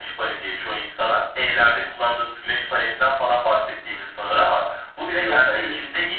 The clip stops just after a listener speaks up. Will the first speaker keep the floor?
Yes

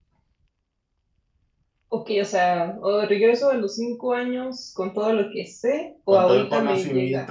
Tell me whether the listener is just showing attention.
No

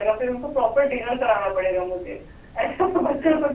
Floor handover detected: No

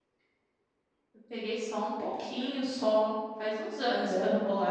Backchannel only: Yes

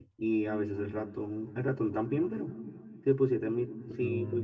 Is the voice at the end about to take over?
No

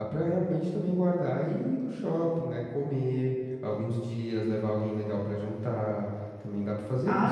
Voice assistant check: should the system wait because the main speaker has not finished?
No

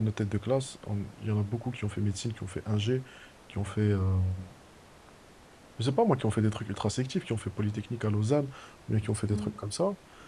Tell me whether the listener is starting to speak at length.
No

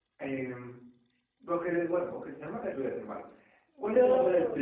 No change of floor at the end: Yes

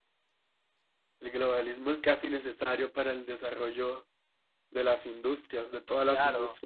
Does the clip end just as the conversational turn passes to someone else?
Yes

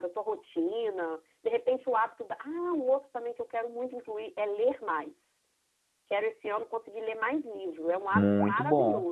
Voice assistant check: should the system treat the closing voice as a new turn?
Yes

